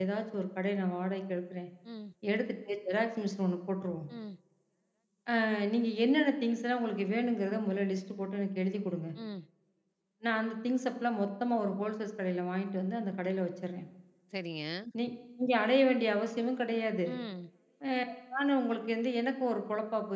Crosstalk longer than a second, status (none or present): none